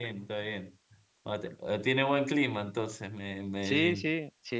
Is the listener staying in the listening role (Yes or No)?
No